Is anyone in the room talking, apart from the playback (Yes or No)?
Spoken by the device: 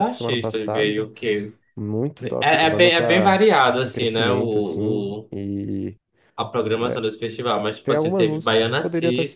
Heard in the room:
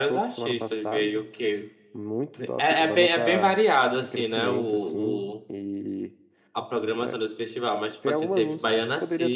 No